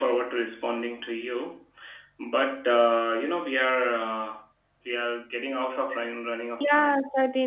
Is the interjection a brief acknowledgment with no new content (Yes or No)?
No